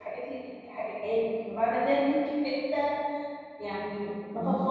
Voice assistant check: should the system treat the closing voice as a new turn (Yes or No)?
No